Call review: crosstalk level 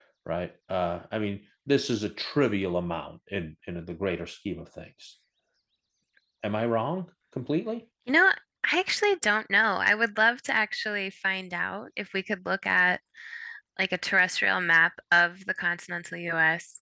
none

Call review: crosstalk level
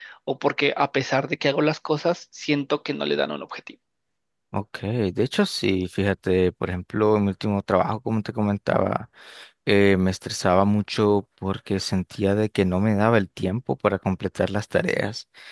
none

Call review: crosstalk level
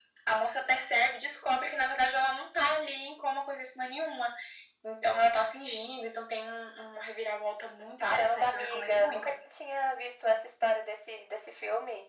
present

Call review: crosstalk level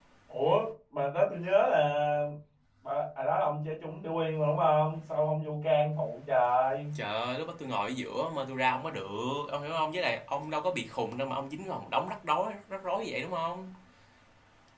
none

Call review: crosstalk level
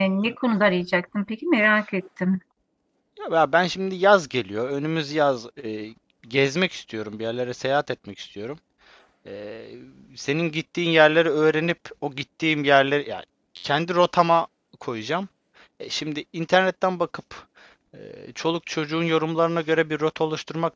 none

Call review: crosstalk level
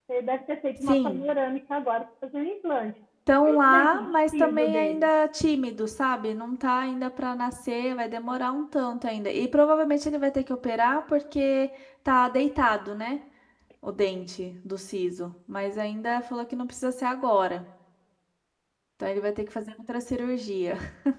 present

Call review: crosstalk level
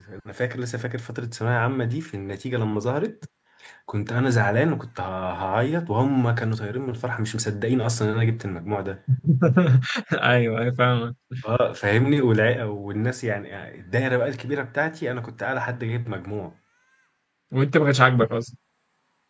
none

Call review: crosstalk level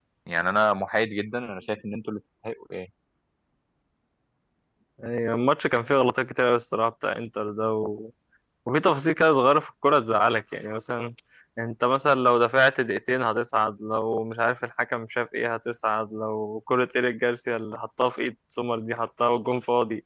none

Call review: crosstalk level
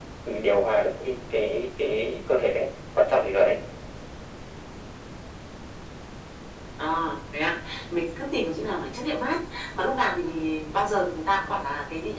none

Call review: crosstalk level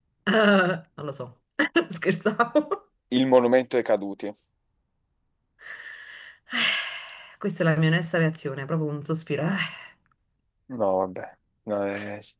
none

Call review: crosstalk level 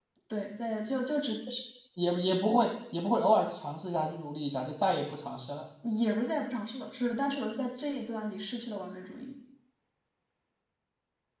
none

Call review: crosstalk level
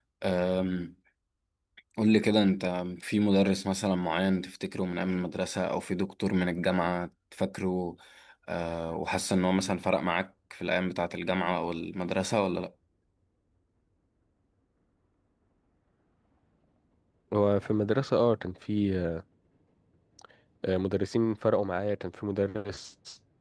none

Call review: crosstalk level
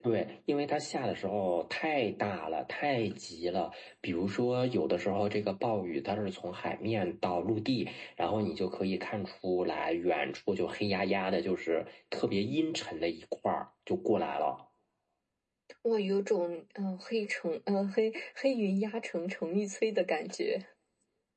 none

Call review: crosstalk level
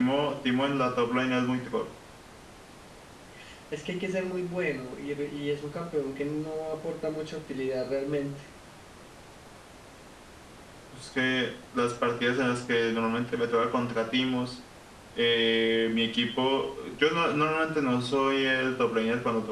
none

